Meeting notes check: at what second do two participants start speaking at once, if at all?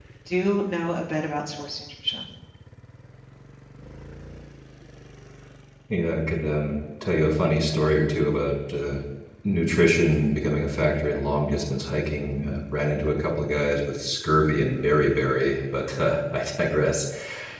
none

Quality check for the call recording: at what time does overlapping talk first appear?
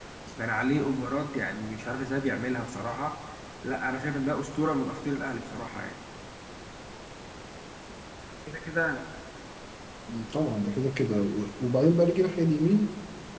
none

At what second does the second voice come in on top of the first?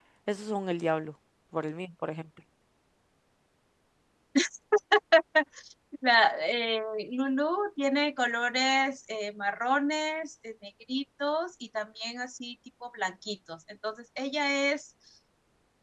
none

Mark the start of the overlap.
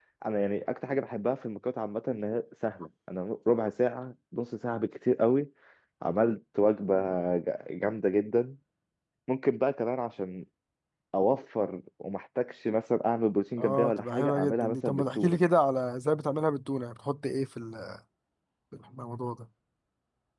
13.6 s

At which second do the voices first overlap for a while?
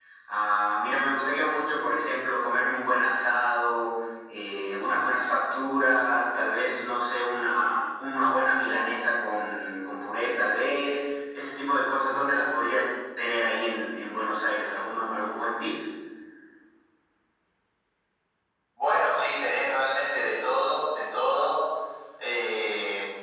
none

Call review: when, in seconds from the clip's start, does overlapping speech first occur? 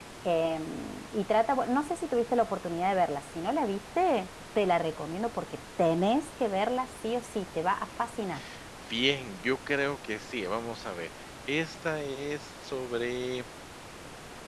none

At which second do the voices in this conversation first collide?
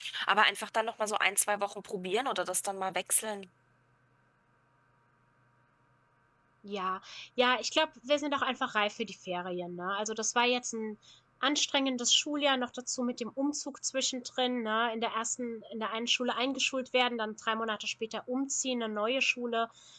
none

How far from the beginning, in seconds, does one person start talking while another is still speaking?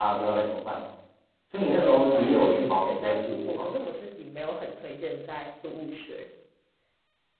1.8 s

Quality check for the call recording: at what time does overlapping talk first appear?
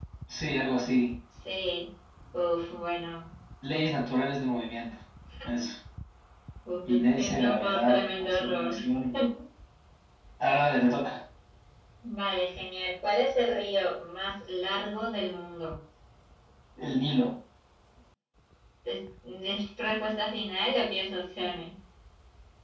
6.9 s

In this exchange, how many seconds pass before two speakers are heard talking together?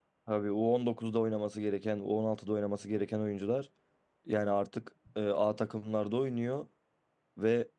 none

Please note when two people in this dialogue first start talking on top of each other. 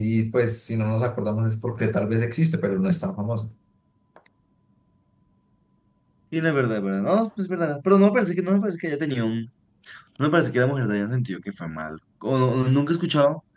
none

